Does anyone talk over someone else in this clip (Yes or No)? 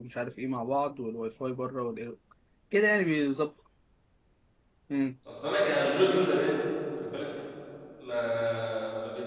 No